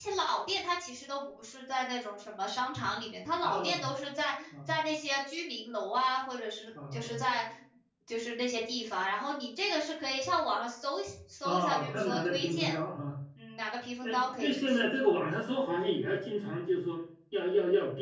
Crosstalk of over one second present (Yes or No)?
Yes